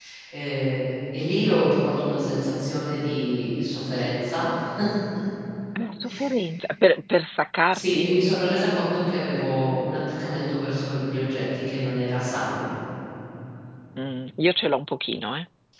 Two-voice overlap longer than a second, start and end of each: none

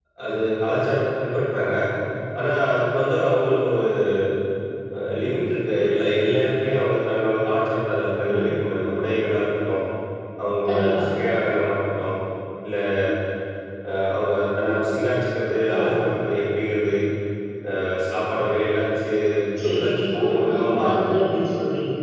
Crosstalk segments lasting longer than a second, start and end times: 19.7-21.0

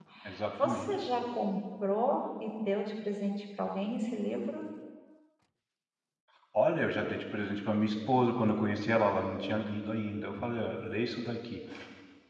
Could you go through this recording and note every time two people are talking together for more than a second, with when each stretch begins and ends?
none

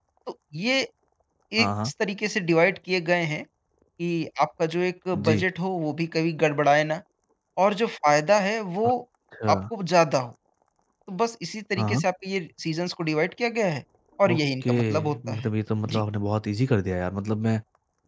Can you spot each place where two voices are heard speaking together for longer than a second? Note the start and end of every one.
14.2-15.5

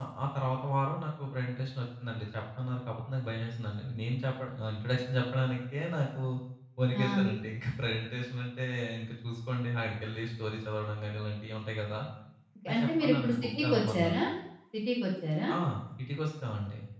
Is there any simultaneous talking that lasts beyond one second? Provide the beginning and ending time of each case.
12.7-14.1

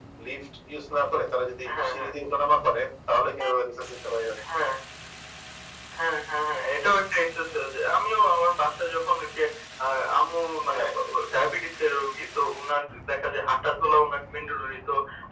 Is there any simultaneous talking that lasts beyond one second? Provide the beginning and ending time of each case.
none

